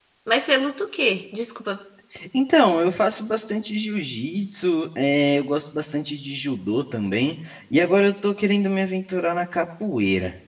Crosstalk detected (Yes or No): No